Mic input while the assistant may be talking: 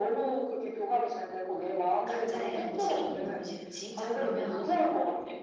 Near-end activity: none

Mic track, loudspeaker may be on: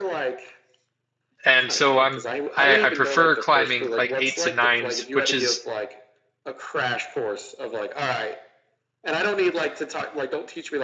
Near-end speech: present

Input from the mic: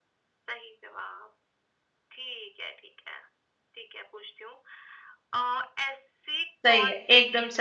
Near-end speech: present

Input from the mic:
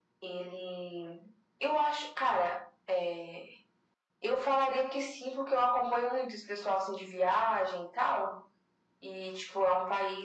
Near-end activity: none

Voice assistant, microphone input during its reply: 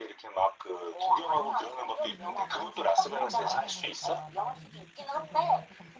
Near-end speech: present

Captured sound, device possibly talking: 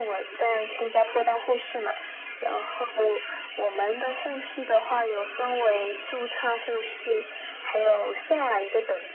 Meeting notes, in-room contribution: none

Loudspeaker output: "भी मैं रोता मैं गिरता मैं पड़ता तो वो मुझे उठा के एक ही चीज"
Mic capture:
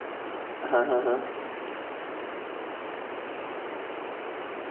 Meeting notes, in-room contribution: present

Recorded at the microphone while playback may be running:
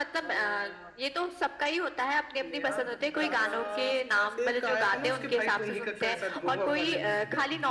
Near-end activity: present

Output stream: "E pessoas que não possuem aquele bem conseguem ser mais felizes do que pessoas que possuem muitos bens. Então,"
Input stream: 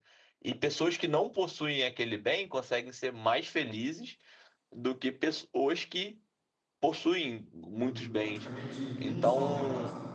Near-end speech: present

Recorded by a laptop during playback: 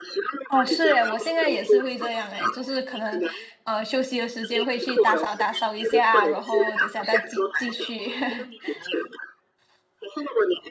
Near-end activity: present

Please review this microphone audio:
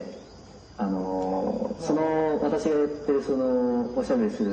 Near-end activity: present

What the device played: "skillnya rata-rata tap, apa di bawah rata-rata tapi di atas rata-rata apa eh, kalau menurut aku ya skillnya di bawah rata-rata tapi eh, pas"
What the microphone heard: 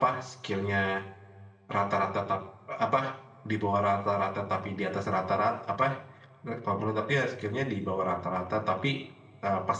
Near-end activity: none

